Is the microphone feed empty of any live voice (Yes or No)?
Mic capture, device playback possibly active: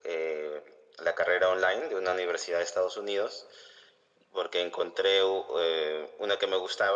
Yes